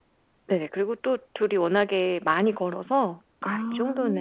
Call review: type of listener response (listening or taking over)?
listening